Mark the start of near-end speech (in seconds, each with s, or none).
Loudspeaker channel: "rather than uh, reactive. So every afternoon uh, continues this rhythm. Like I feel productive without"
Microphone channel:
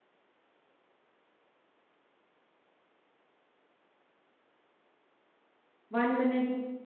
5.9 s